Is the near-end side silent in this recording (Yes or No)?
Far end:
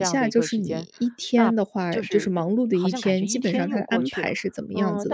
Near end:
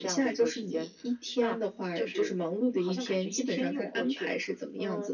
Yes